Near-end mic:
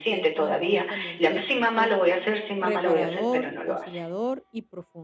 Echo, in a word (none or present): present